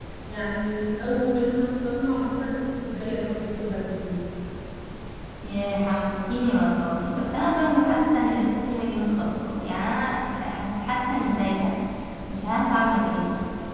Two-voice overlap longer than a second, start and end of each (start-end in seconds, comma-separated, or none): none